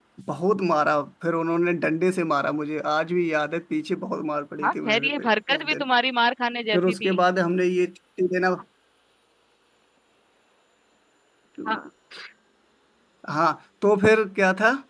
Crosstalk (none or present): present